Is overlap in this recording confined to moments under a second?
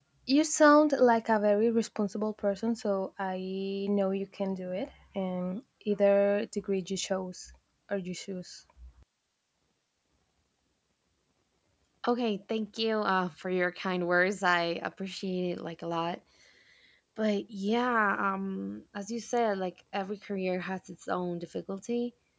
Yes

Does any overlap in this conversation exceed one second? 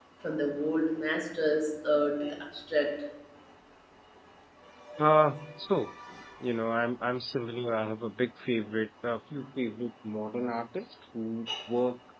No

